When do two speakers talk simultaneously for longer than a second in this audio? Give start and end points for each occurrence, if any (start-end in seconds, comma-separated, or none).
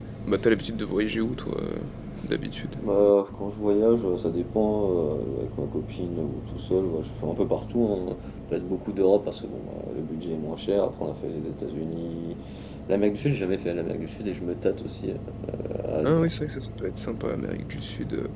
none